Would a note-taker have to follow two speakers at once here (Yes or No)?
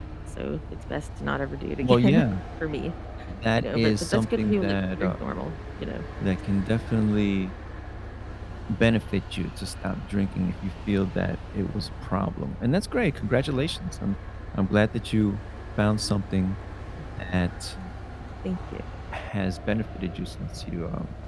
Yes